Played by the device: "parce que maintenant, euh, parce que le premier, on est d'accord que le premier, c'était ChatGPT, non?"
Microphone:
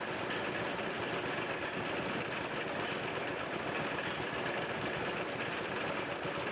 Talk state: neither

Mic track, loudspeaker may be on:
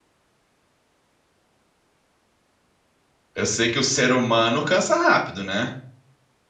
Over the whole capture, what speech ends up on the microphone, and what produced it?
user only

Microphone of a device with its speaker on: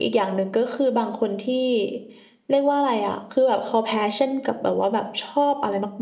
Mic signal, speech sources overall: user only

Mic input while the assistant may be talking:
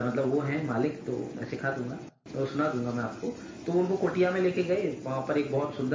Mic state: echo only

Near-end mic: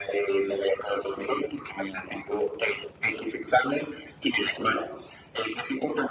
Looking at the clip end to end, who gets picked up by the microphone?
echo only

